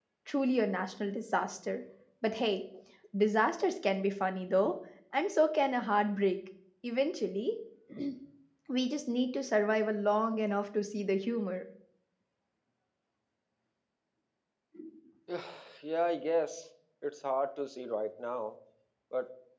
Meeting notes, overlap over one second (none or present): none